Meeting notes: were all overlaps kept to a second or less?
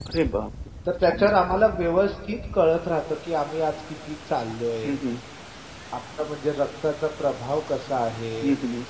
Yes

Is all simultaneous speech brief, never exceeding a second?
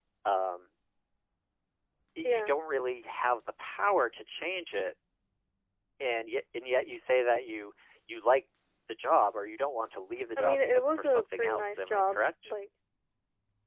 No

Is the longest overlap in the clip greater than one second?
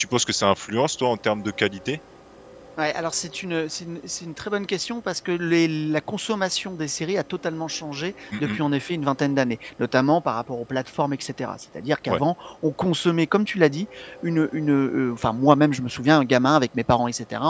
No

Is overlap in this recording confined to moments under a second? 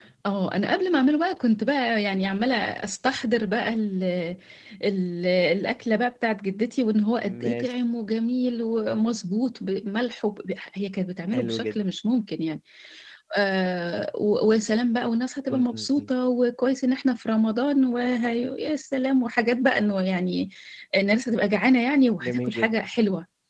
Yes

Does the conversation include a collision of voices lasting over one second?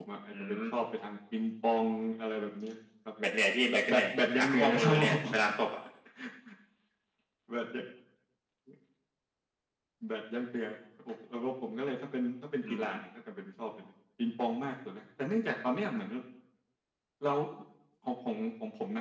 Yes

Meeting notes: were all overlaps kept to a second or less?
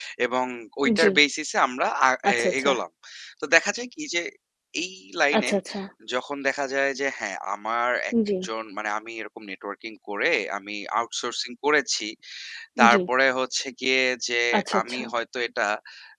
Yes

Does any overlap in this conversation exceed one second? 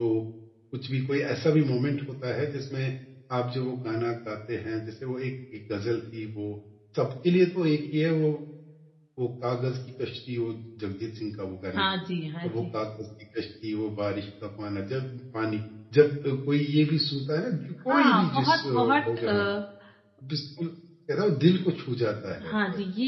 Yes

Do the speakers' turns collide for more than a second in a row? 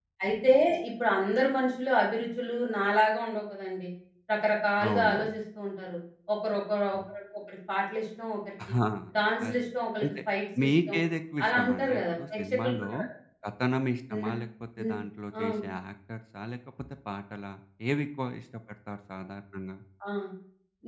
Yes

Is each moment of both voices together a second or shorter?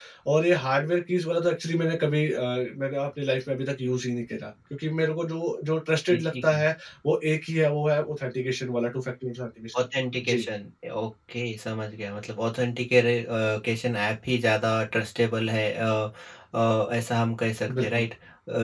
Yes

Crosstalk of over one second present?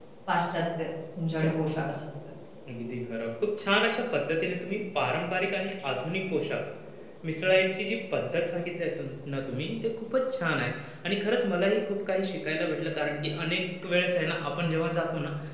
No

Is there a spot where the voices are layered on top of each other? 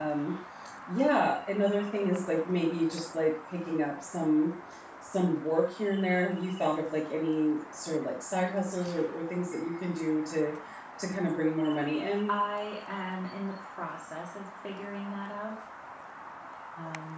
No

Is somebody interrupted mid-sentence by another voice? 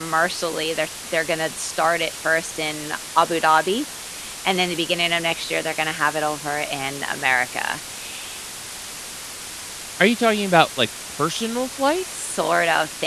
No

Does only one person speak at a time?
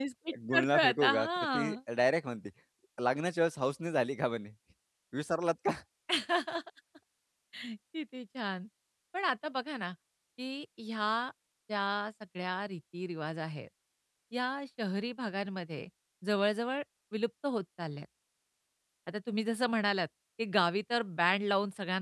No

